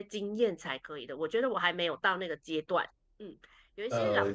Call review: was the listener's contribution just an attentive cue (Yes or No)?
Yes